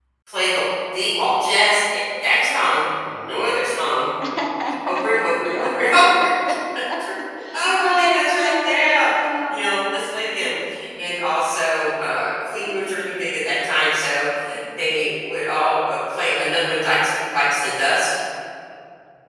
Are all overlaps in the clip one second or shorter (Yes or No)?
No